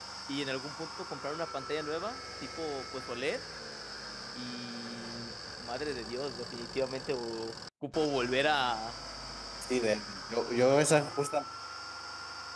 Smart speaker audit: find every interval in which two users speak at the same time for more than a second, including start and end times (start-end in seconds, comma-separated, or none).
none